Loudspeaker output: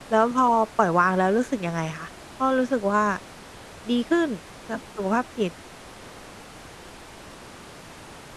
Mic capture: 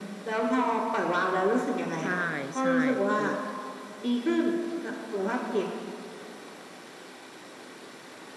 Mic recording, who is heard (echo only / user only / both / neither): both